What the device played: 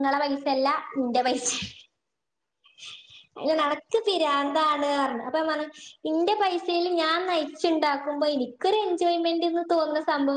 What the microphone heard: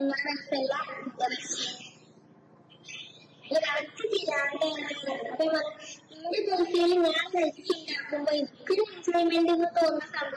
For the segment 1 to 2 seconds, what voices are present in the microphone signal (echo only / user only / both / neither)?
echo only